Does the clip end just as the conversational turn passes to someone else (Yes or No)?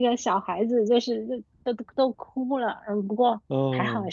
No